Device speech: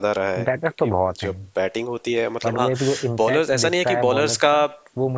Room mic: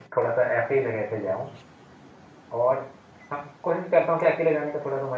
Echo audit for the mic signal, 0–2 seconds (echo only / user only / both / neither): user only